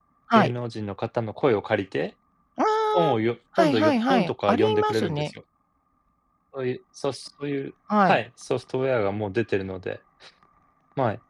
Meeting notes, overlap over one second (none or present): present